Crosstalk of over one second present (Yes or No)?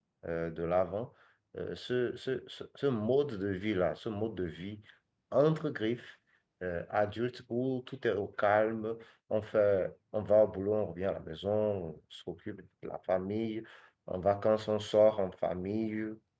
No